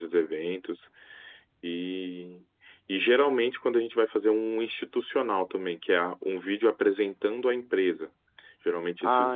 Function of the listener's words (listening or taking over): listening